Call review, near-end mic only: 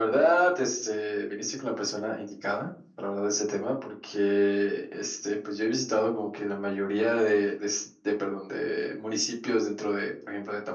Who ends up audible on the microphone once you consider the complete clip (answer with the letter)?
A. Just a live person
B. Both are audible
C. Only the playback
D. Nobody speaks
C